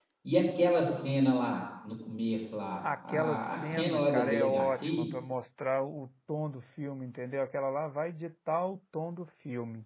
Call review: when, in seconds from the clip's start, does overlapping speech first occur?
3.1 s

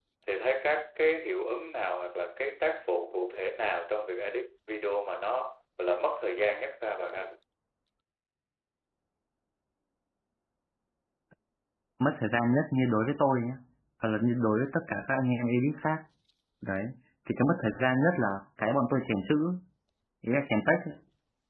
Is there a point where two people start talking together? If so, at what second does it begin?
none

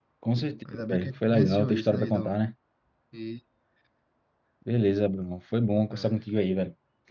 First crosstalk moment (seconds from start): 0.7 s

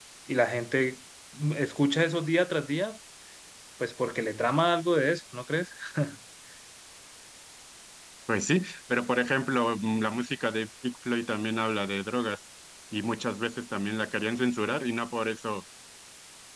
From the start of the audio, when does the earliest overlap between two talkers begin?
none

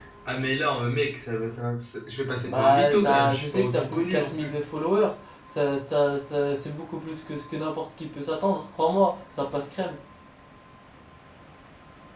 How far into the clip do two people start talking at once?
2.5 s

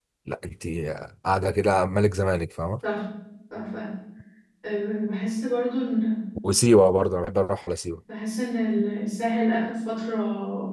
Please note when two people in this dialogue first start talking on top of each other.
none

